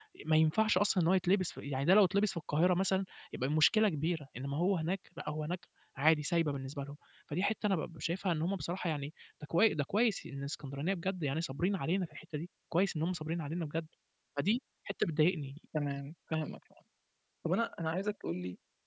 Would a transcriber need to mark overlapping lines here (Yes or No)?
No